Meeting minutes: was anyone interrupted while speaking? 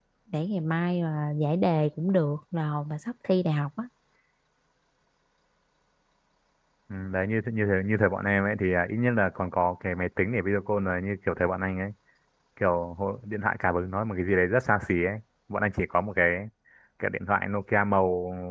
No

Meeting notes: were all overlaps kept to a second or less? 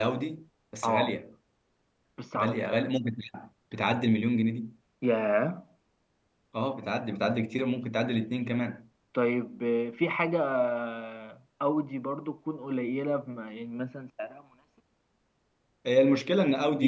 Yes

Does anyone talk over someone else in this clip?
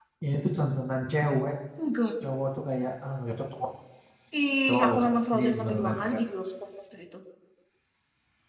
Yes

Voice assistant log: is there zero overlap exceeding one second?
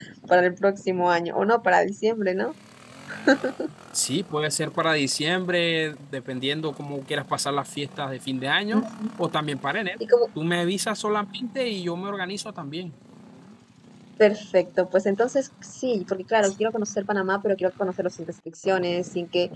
Yes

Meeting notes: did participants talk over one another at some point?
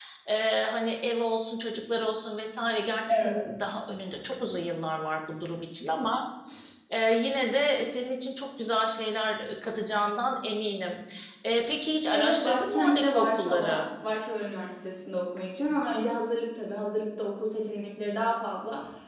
Yes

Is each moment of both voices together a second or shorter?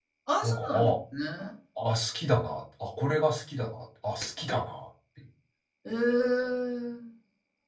Yes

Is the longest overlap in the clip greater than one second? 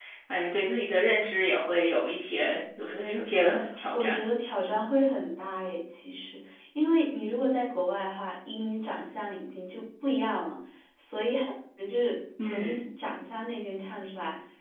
No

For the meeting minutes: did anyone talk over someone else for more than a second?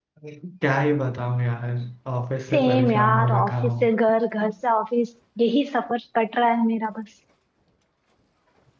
Yes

